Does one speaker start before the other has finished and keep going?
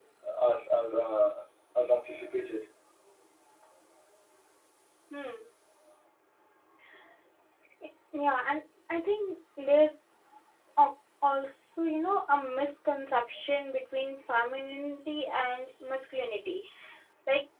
No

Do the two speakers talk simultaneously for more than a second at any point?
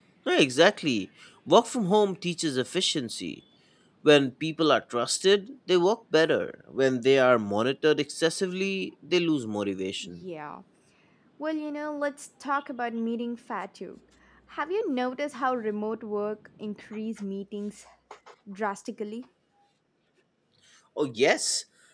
No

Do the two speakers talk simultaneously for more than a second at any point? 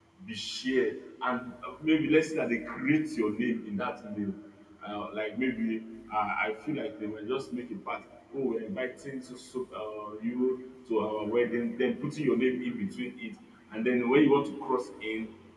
No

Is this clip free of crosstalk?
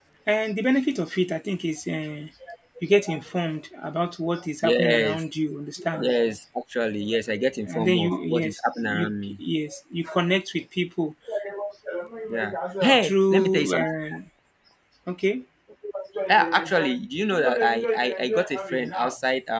No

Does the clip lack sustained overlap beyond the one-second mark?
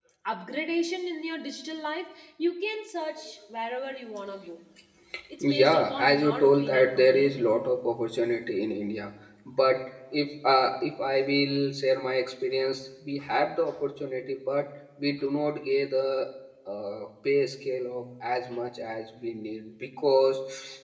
No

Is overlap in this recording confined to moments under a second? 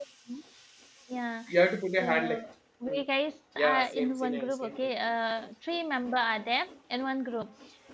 No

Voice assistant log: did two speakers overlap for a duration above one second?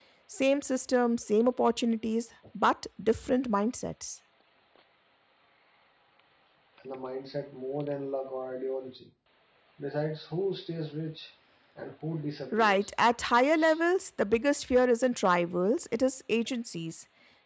No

